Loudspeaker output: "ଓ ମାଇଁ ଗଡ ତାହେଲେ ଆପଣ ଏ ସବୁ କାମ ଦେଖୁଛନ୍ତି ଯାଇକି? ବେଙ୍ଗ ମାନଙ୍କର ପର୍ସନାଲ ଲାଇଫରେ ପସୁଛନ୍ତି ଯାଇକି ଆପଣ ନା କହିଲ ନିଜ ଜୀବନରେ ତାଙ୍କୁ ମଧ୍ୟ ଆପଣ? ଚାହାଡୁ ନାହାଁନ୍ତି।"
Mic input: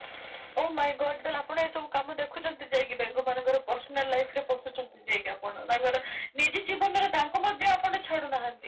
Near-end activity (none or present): none